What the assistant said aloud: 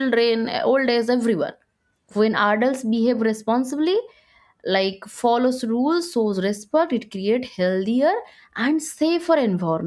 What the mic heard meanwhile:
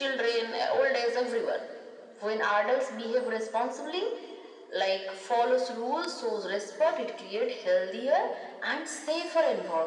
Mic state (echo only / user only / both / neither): echo only